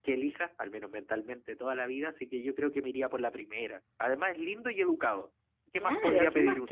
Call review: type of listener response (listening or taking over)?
taking over